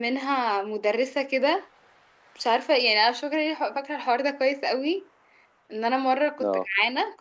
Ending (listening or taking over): listening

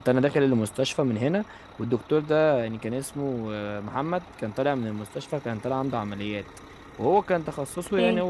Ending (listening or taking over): listening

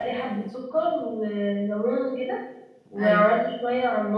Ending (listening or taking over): listening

